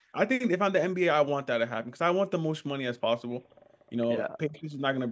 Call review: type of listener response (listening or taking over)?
listening